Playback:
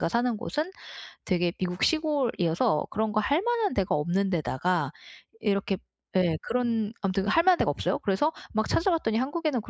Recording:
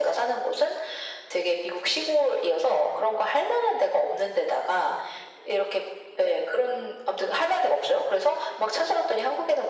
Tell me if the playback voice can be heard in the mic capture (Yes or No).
Yes